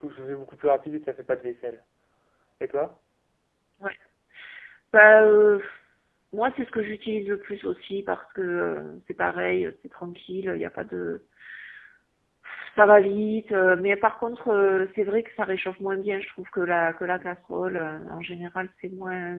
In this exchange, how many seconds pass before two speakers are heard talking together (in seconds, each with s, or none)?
none